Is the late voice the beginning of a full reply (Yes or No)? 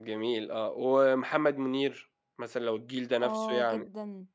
Yes